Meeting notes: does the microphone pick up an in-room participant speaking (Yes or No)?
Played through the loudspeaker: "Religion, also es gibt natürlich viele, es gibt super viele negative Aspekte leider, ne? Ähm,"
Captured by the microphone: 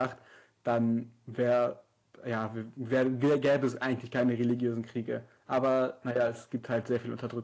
Yes